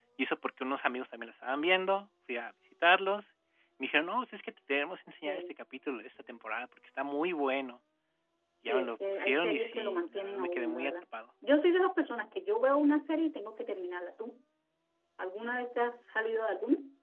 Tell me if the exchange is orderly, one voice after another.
No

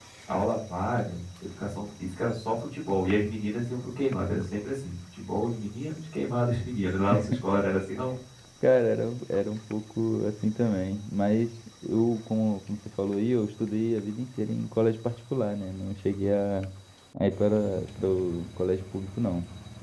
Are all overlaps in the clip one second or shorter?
Yes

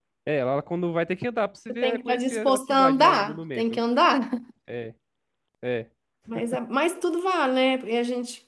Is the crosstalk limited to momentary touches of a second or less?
No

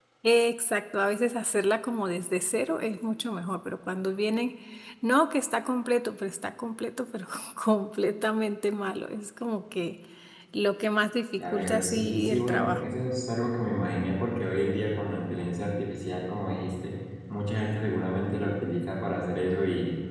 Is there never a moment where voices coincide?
No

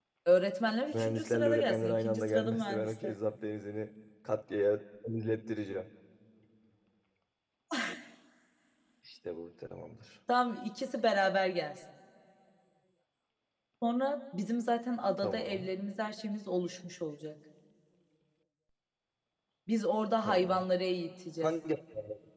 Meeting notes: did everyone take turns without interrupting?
No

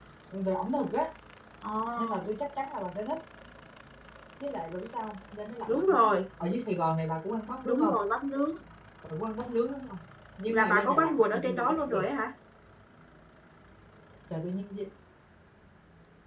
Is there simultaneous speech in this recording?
Yes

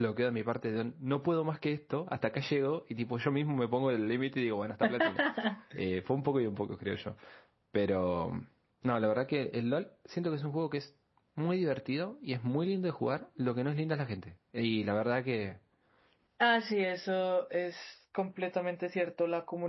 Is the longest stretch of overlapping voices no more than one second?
Yes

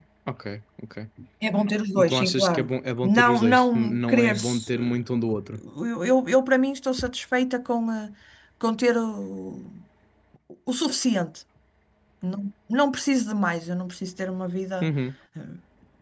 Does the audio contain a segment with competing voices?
Yes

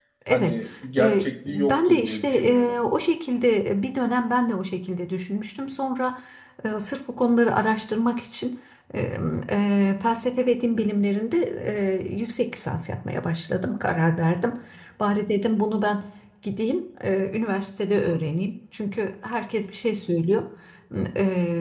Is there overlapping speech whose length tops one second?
Yes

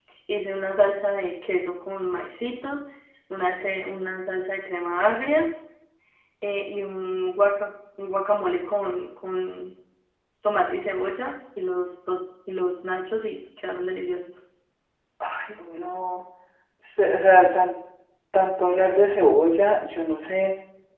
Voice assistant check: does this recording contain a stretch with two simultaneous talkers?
No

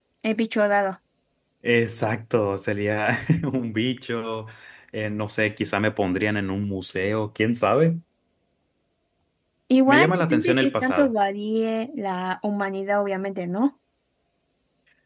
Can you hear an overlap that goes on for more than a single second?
Yes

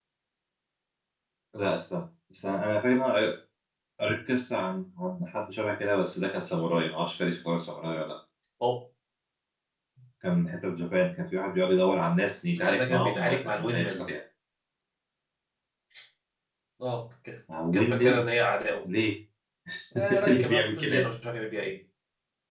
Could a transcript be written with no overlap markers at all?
No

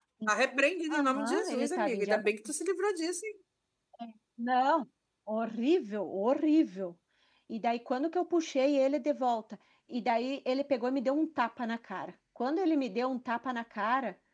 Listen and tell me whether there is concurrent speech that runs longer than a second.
Yes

